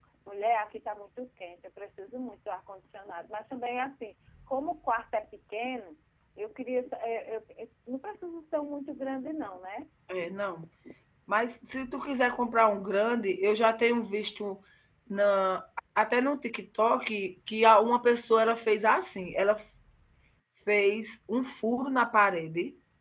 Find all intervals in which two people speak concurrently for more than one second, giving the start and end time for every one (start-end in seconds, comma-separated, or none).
none